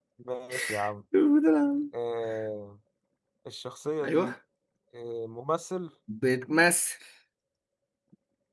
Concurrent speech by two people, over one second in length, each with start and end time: none

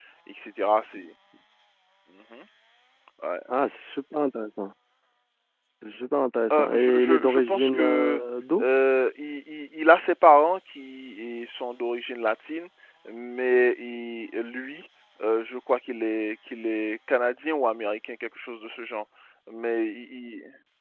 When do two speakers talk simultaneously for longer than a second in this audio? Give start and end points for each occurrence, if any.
6.5-8.2

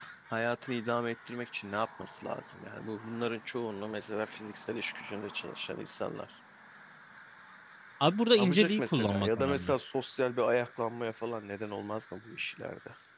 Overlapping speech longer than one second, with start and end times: 8.4-9.7

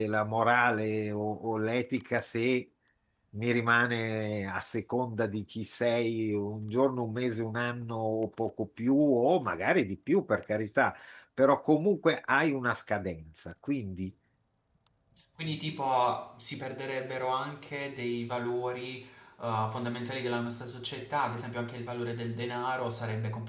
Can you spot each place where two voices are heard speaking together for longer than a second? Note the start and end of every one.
none

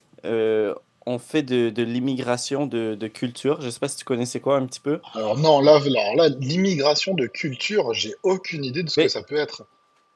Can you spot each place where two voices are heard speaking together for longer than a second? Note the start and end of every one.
none

